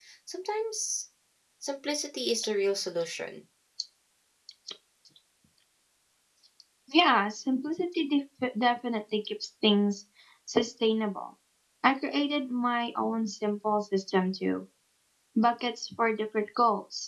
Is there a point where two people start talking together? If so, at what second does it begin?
none

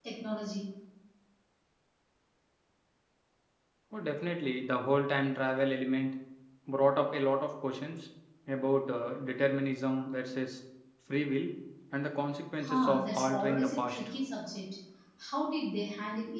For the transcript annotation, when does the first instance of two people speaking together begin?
12.6 s

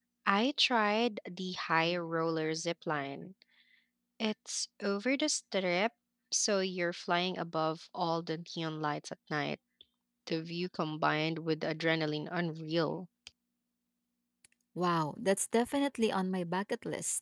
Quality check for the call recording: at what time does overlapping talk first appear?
none

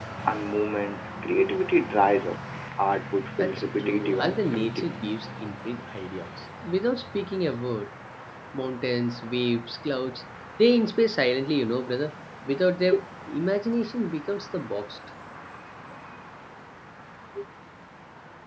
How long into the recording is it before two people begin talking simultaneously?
3.4 s

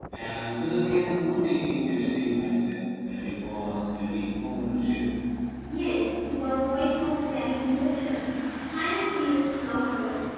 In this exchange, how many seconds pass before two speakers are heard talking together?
none

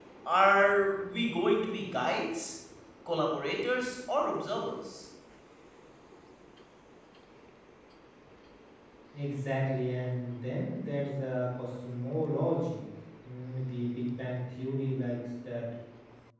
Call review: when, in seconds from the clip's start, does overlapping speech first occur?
none

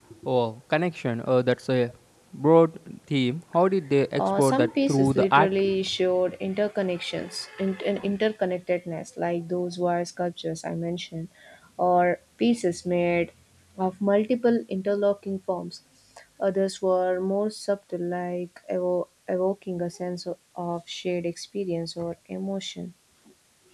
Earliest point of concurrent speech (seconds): 4.2 s

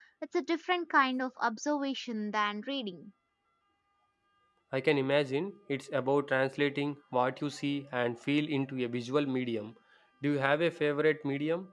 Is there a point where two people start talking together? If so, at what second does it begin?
none

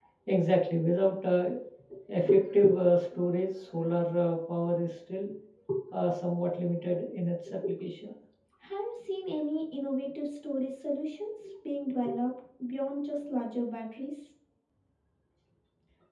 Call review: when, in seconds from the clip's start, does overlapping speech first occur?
none

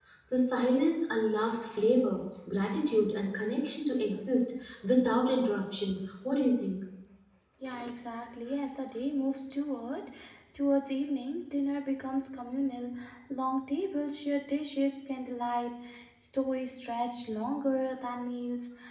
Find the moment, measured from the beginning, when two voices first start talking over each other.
none

